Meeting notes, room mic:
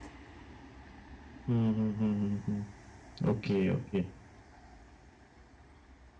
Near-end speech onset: 1.5 s

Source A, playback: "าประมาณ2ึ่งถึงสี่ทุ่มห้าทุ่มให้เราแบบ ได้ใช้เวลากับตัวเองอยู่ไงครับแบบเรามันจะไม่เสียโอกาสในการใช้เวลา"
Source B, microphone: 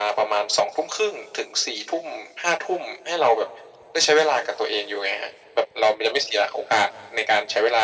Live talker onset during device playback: none

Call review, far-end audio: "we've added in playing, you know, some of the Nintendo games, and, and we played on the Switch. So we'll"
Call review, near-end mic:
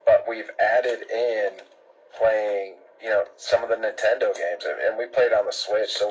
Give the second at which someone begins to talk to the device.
none

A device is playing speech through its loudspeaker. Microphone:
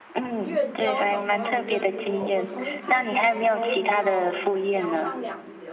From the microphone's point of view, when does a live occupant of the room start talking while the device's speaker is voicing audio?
0.4 s

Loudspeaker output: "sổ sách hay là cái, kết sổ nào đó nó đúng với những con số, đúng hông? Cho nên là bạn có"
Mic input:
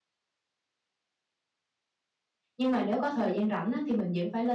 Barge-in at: 2.6 s

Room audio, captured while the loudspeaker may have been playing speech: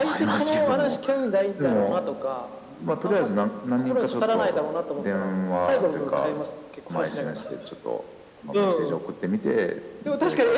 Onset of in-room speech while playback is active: none

